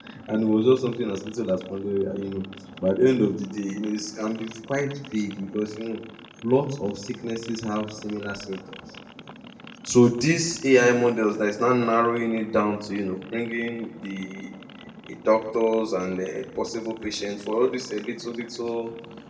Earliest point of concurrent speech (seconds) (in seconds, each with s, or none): none